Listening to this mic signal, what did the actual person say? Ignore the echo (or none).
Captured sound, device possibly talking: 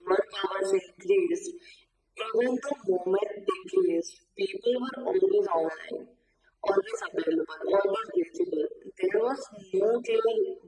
none